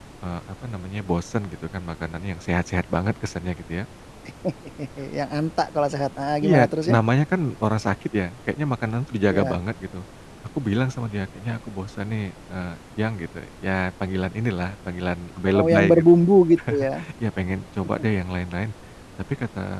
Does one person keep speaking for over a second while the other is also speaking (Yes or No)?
No